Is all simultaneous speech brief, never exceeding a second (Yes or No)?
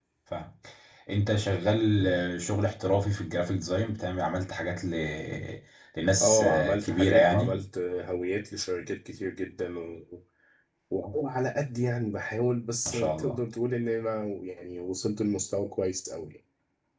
No